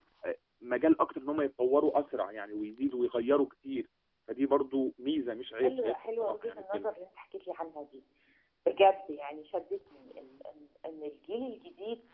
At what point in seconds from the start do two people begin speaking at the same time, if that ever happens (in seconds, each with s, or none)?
5.6 s